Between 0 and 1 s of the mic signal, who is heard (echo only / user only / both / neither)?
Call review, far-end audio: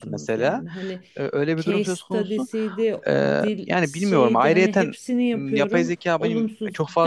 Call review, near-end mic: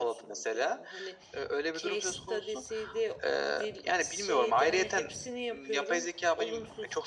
echo only